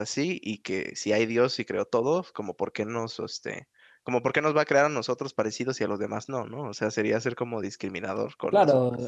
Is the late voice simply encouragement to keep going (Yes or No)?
No